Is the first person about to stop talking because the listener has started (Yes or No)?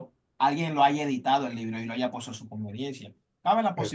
No